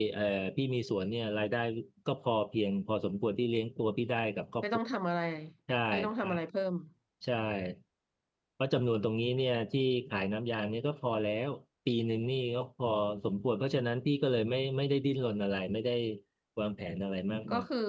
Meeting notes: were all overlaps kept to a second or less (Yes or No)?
Yes